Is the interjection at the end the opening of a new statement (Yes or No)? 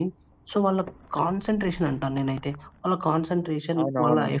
No